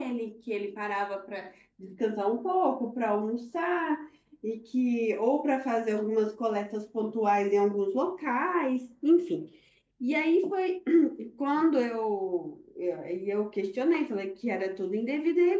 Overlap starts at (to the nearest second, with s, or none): none